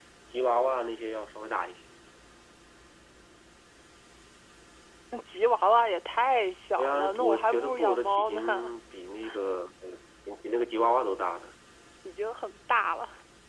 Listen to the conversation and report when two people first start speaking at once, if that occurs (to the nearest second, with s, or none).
7 s